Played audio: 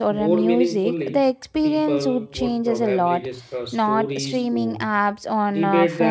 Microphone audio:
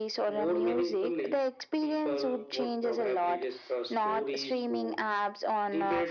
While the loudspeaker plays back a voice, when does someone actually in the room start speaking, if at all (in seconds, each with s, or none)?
none